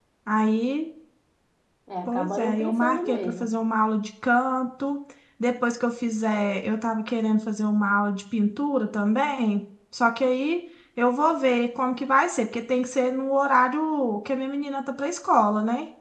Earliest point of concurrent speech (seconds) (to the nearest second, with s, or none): 2 s